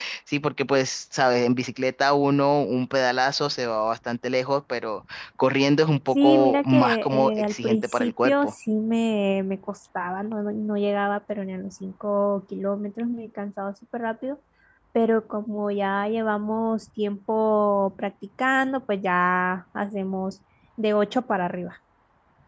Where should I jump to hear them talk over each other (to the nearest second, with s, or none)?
6 s